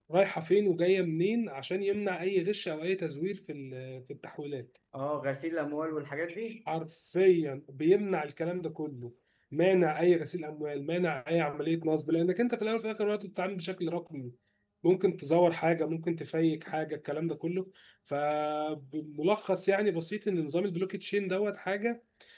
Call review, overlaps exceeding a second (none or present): none